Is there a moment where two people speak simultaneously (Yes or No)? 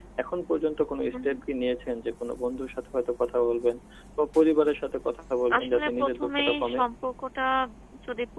Yes